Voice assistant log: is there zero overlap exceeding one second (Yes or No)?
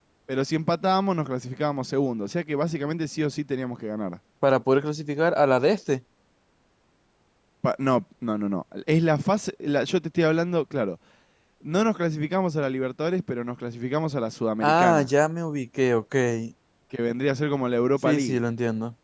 Yes